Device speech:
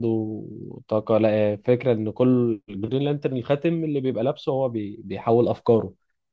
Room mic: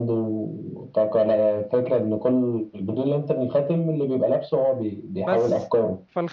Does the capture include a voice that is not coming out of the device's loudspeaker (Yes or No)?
Yes